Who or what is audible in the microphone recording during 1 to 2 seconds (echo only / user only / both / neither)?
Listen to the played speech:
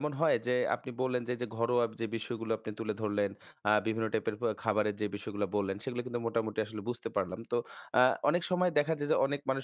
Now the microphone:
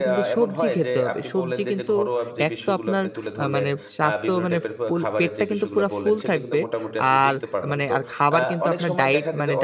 both